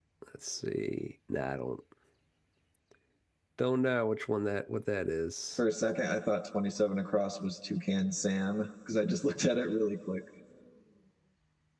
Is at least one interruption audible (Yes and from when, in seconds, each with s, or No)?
No